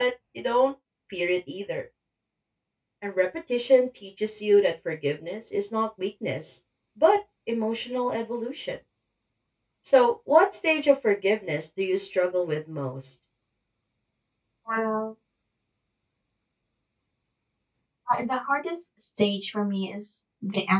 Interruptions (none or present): none